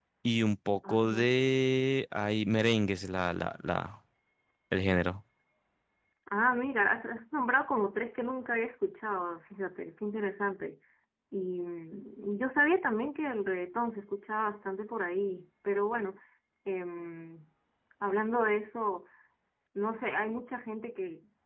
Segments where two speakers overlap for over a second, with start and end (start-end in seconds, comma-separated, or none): none